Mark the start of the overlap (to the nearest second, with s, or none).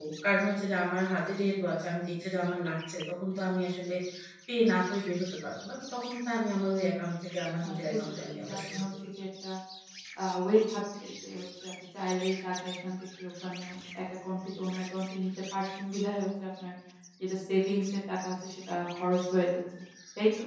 8 s